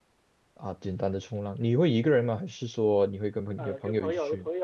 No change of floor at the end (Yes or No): No